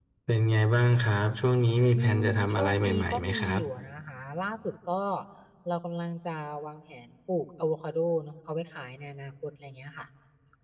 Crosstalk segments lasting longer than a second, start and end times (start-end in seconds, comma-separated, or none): 1.9-3.6